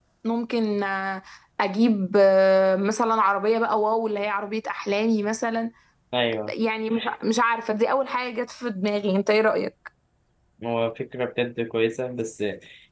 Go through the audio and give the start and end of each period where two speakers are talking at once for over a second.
none

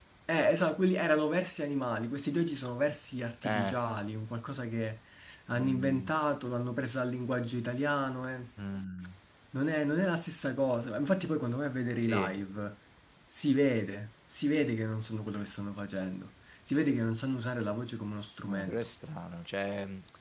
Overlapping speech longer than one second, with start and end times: none

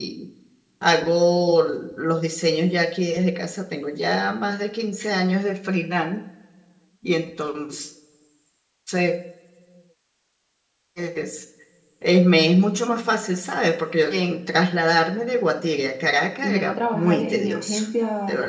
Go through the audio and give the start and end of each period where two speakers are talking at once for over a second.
16.0-17.8

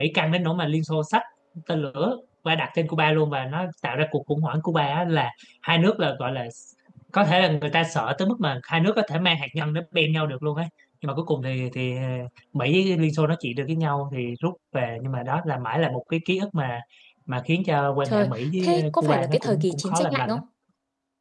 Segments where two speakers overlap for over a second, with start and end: 18.1-20.4

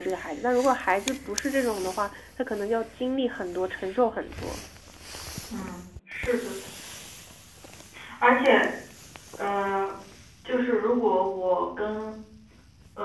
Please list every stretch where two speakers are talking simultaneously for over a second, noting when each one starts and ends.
none

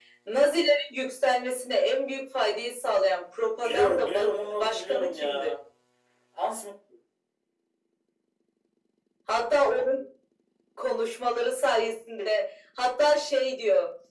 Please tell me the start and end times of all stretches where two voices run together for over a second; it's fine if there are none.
3.6-5.5

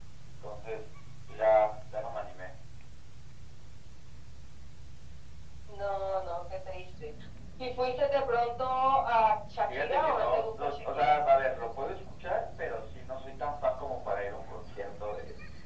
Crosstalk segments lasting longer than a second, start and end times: 9.7-11.2

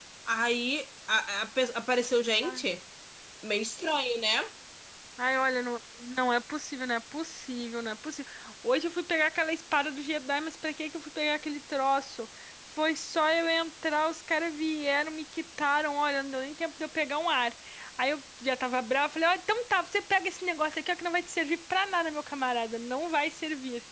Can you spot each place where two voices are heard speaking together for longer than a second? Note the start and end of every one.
none

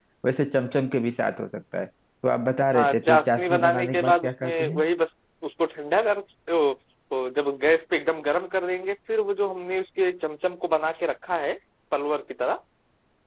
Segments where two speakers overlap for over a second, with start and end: 2.7-4.8

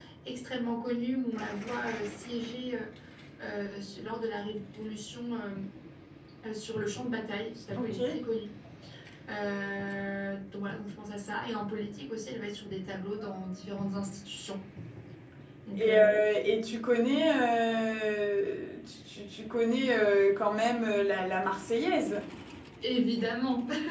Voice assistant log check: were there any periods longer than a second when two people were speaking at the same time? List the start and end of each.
none

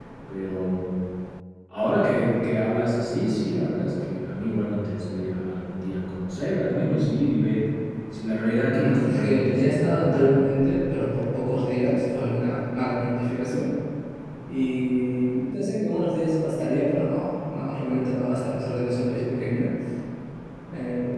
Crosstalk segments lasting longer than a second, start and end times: 8.7-10.4

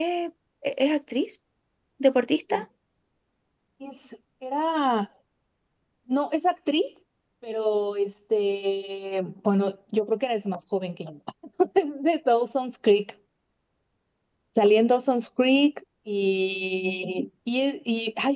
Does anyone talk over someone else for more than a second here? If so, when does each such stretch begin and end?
none

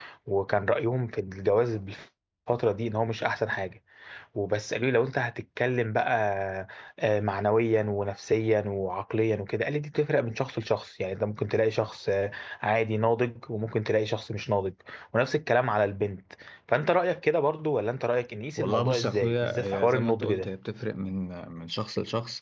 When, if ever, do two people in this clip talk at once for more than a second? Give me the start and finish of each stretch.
18.6-20.5

